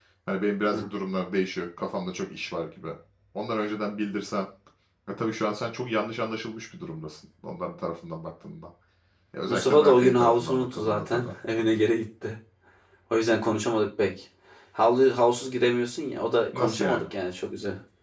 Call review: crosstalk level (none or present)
present